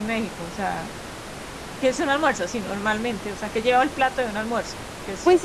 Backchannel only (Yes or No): No